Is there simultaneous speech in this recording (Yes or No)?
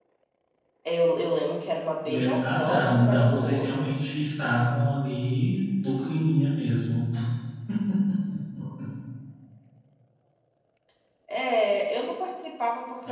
Yes